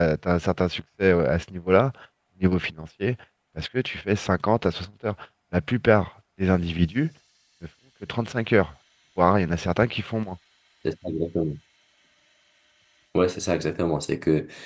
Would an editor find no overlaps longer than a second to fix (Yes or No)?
Yes